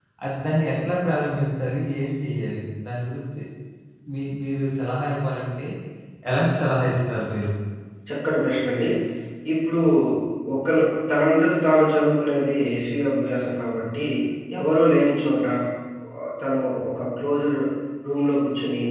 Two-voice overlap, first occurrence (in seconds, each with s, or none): none